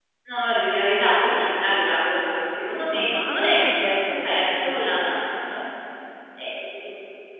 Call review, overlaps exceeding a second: present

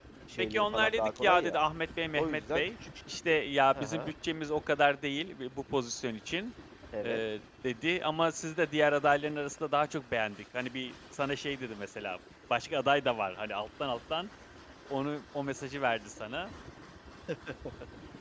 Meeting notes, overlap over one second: present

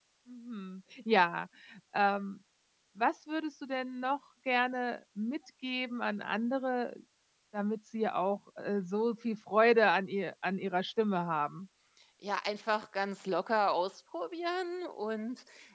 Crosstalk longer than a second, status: none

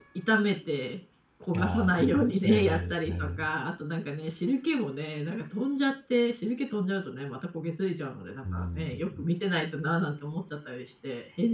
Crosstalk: present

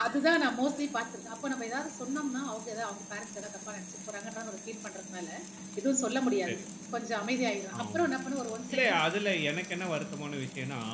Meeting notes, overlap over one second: none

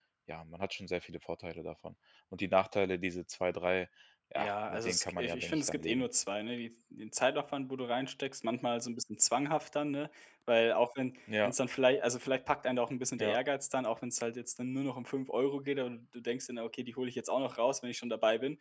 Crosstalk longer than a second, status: present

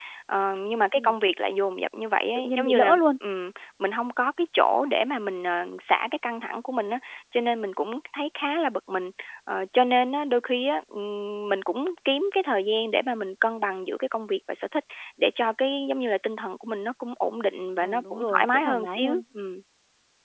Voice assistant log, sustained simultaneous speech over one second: present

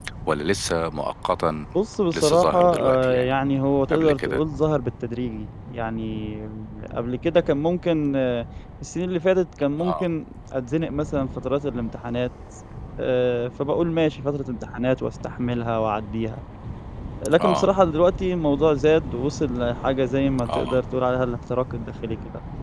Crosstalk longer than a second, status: present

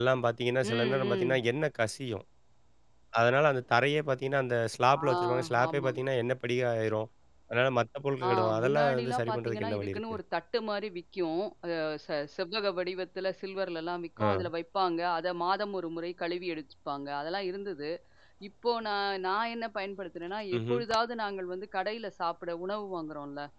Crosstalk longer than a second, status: present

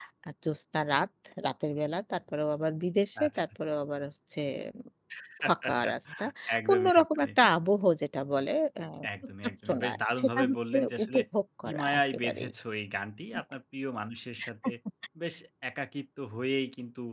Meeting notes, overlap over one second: present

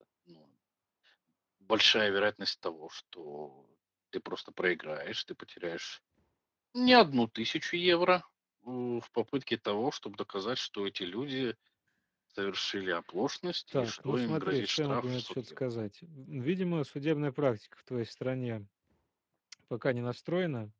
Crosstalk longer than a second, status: present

